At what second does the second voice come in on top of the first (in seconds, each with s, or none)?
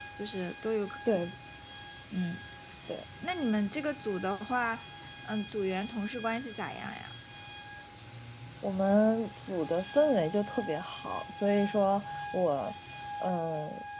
none